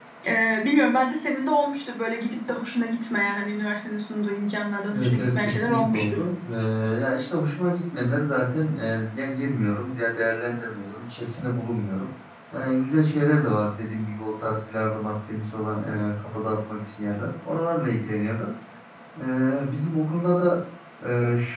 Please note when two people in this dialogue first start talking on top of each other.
4.9 s

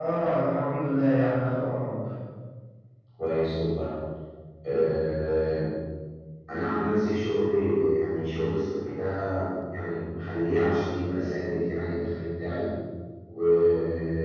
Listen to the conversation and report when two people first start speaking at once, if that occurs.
none

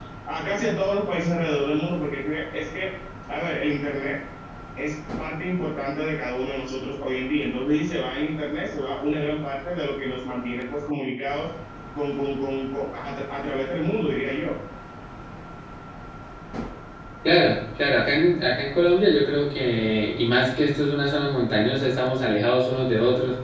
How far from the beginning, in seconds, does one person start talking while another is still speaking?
none

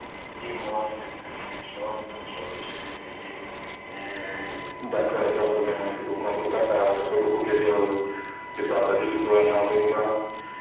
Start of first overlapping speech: 5.1 s

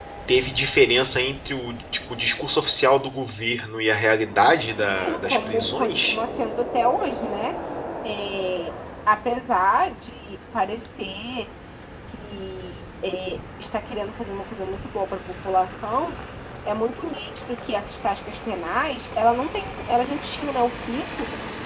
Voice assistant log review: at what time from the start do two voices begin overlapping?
4.8 s

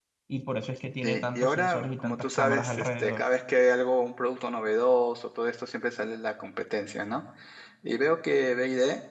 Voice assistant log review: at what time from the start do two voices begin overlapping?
1.0 s

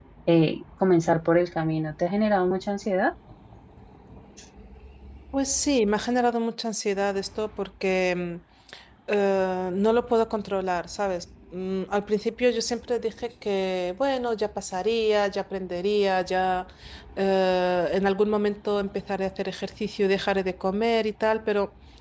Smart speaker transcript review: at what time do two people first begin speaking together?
none

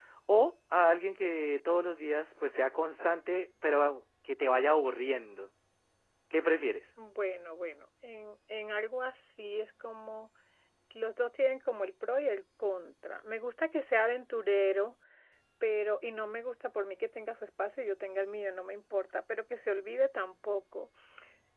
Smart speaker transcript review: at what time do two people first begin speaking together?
none

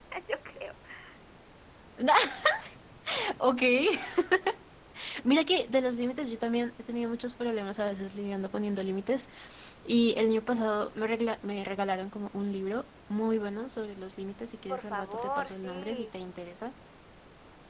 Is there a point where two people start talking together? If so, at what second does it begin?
14.7 s

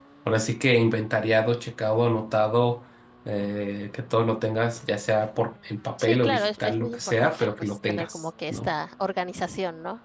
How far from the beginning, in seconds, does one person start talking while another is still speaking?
6.0 s

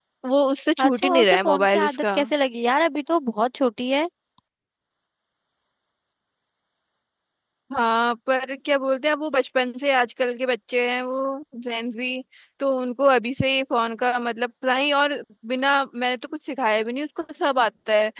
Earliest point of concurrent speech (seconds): 0.8 s

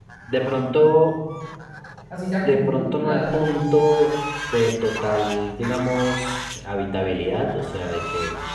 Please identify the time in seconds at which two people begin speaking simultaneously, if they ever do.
2.4 s

